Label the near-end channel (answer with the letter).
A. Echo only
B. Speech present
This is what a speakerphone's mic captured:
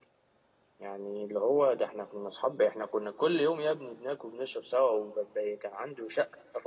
B